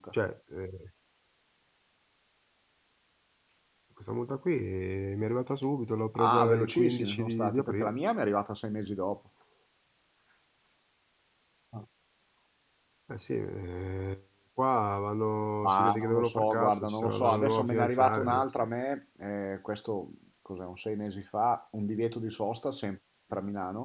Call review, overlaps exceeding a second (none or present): present